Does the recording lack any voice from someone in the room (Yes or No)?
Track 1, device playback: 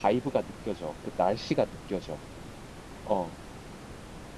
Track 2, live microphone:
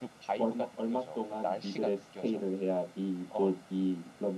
No